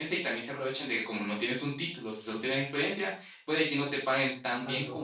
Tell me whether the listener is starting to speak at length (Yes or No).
No